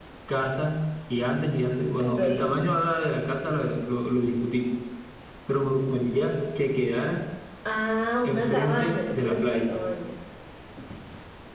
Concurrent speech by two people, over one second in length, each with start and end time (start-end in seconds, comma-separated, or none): 8.2-9.7